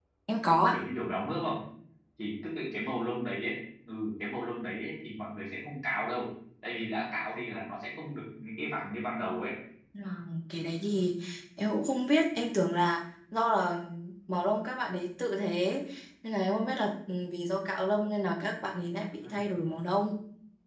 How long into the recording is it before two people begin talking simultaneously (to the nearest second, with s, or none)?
none